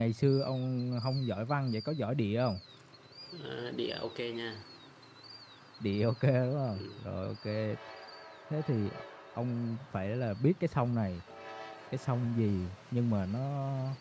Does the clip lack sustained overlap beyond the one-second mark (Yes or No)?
Yes